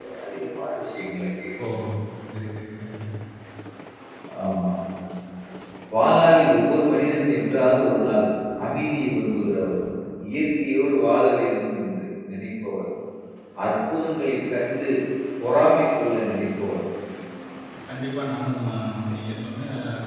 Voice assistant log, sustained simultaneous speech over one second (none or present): none